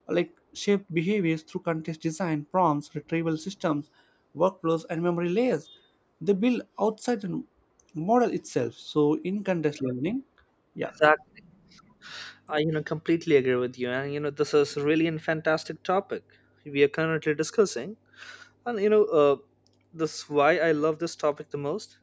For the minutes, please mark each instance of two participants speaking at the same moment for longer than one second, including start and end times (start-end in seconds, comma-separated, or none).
none